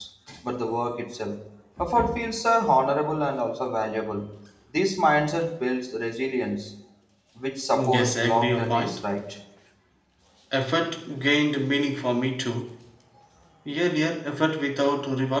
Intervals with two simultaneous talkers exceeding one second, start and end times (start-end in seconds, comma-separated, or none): 7.7-9.0